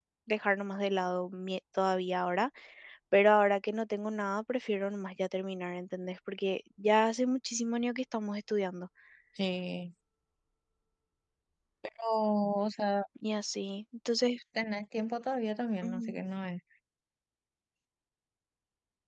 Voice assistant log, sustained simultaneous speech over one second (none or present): none